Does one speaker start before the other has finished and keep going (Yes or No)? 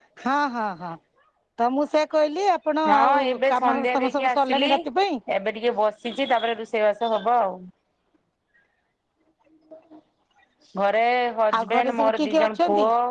Yes